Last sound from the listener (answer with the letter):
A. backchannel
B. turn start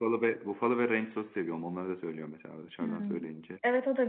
B